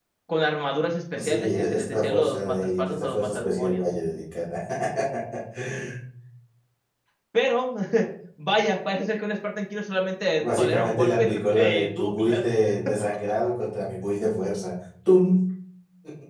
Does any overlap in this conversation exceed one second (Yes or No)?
Yes